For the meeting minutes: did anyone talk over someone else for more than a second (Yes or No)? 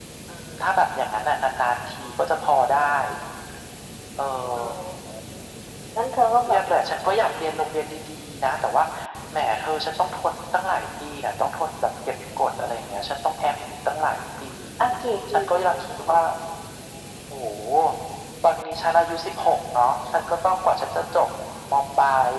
No